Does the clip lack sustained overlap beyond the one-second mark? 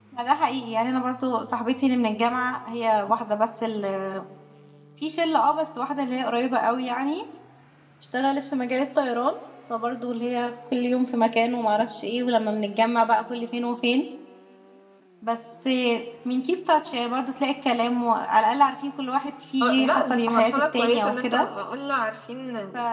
No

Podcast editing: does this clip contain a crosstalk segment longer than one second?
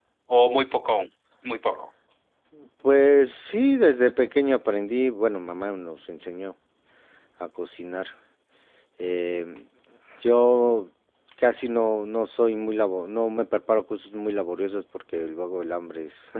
No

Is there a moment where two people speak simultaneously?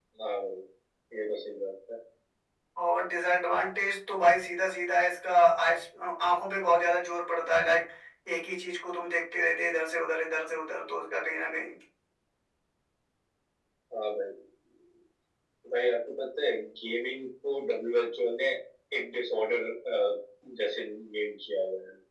No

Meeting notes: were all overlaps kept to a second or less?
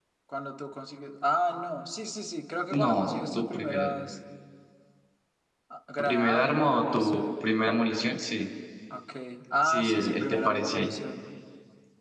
No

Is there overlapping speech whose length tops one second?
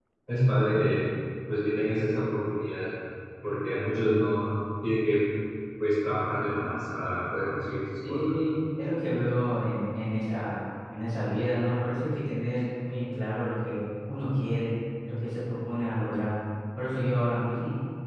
No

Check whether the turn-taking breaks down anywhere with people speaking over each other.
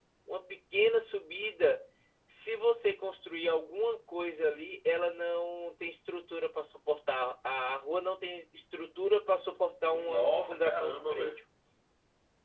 Yes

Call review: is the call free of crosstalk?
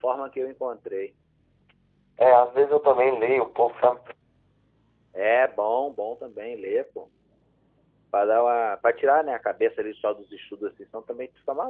Yes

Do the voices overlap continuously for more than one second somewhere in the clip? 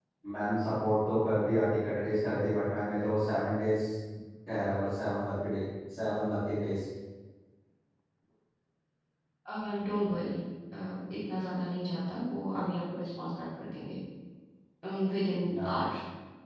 No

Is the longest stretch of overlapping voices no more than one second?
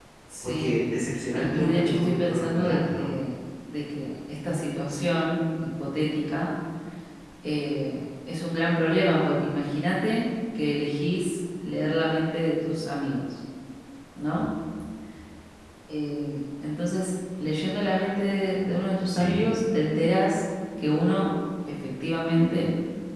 No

